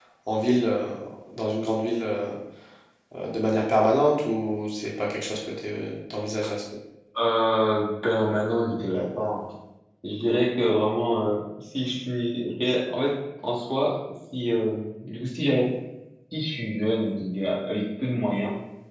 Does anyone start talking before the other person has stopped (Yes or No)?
No